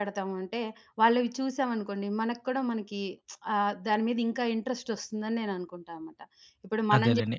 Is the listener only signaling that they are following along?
No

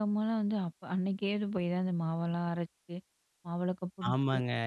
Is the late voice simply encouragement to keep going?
No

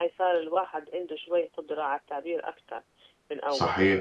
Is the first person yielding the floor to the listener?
Yes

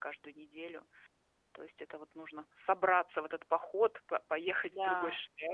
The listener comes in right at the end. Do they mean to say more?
No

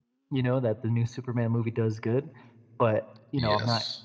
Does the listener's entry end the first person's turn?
No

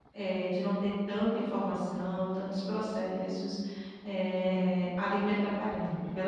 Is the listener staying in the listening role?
No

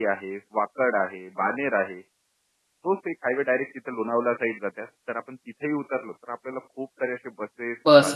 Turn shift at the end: Yes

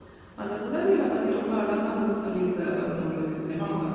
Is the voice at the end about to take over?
Yes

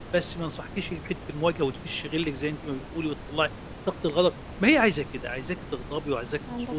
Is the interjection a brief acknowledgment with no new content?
Yes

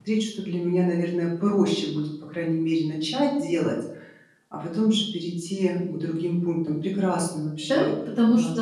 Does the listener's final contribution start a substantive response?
Yes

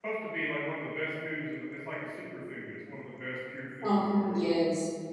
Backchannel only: No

